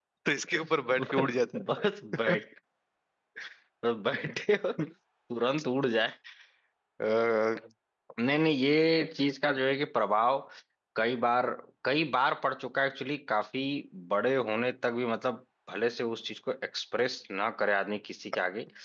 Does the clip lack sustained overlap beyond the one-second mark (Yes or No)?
Yes